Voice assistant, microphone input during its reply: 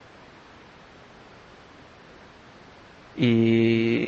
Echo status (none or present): none